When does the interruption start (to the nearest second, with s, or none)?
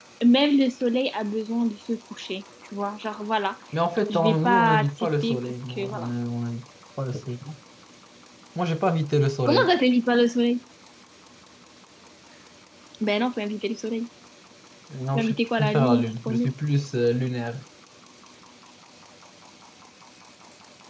4 s